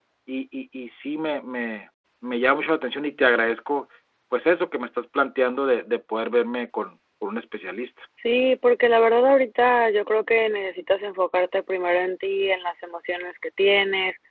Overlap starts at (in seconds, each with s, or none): none